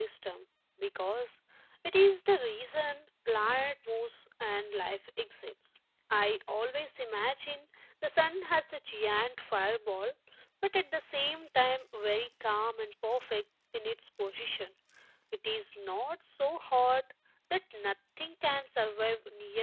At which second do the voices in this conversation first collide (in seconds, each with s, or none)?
none